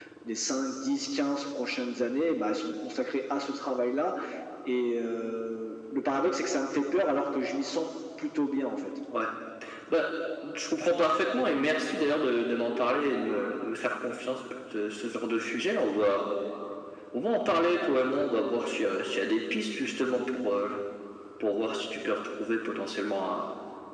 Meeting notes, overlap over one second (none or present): none